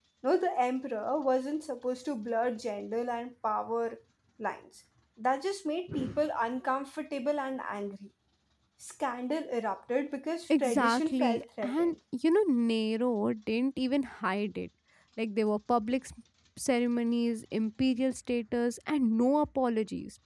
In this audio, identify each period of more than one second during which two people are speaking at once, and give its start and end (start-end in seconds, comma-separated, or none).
10.6-11.9